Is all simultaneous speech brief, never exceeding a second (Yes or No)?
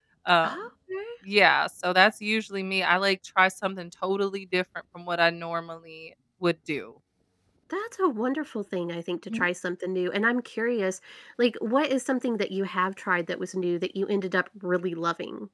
Yes